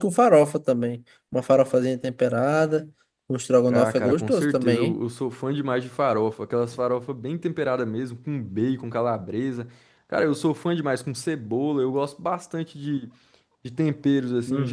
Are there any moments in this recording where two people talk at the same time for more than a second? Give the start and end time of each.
3.7-5.0

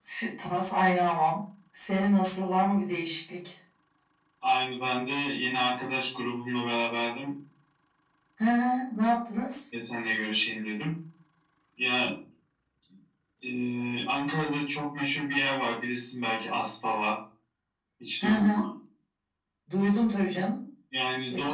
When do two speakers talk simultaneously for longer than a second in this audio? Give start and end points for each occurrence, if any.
none

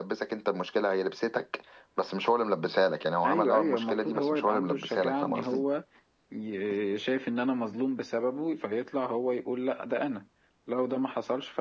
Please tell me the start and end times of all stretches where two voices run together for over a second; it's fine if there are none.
3.2-5.6

